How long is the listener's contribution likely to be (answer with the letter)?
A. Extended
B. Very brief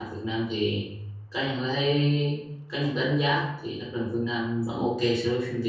A